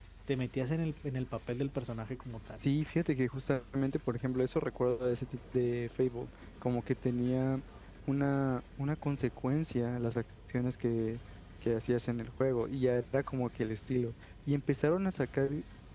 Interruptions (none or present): none